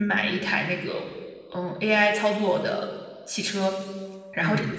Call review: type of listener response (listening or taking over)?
listening